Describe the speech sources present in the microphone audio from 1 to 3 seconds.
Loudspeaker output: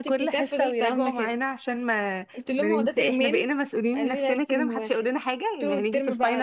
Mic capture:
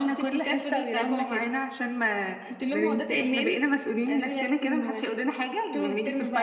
echo only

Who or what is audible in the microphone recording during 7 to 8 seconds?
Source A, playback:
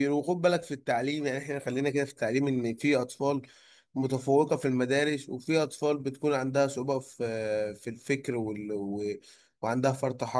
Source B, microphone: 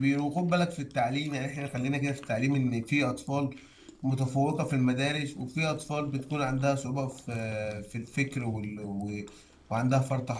echo only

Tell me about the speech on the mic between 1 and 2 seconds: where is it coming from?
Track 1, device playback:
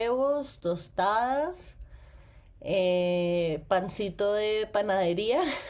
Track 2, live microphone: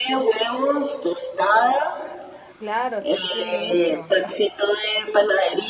echo only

